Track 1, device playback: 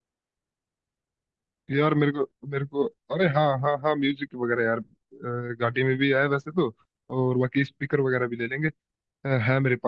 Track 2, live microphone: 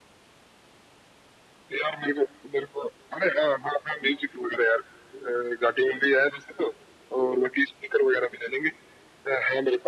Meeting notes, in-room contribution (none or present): none